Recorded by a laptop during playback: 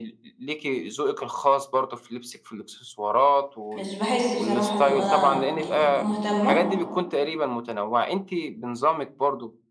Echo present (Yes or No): Yes